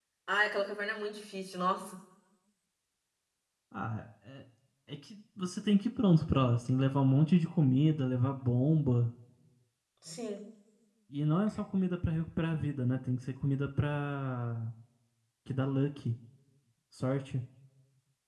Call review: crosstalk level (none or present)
none